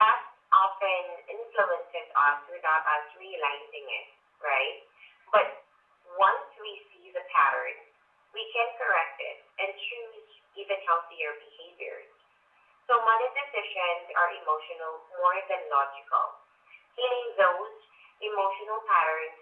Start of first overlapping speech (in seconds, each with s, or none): none